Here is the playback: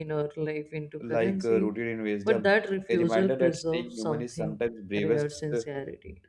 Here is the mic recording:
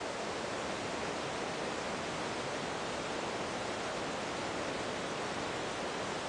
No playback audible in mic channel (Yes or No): Yes